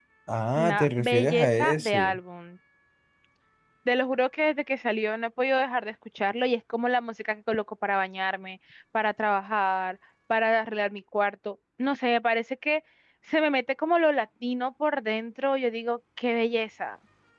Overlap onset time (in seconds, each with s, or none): 0.6 s